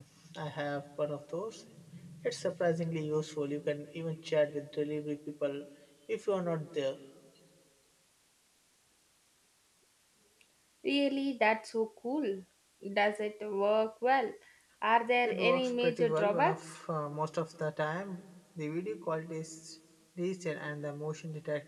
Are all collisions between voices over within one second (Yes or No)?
No